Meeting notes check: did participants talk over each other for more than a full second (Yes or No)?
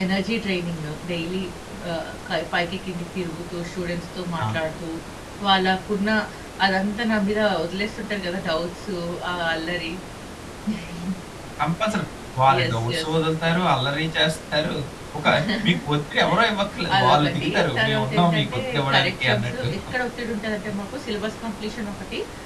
Yes